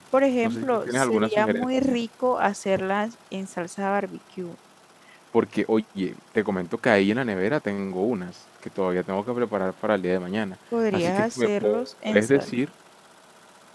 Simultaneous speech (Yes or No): Yes